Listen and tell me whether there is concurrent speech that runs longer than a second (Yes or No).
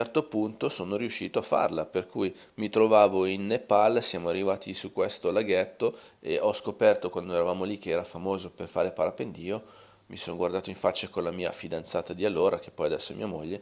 No